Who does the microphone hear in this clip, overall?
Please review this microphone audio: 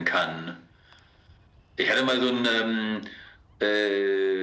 echo only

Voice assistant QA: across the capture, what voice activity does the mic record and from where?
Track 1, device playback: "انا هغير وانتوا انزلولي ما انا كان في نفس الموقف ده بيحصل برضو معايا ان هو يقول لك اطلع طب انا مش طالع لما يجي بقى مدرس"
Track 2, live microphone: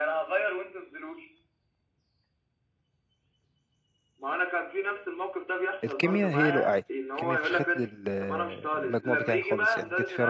both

